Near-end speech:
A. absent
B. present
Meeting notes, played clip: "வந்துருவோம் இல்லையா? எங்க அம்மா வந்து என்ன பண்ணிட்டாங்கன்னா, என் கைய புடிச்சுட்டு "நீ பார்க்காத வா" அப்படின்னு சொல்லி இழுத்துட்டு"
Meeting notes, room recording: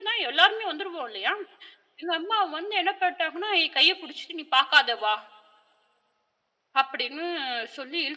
A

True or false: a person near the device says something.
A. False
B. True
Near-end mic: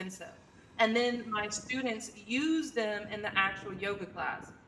B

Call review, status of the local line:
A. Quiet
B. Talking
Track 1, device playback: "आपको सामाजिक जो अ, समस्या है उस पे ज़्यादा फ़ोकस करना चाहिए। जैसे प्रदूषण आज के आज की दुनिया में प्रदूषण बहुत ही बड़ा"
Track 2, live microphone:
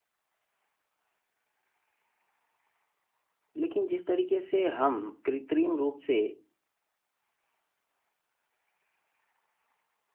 B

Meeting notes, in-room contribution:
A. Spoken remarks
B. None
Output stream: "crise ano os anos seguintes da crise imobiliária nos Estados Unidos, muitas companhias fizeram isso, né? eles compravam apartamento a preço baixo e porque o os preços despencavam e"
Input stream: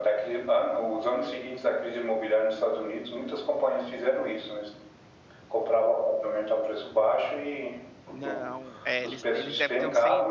A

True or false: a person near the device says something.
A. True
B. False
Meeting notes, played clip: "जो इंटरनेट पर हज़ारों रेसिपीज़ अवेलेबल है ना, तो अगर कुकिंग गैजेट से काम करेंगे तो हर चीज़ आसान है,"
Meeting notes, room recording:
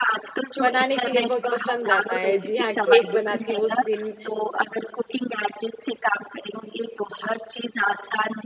A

